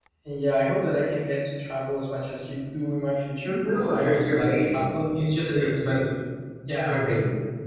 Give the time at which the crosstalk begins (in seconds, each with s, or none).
3.5 s